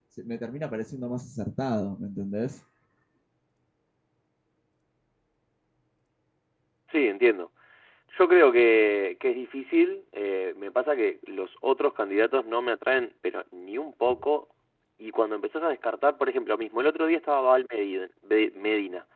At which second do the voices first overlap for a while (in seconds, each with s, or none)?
none